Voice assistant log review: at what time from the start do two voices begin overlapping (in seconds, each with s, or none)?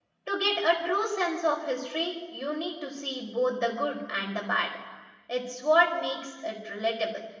none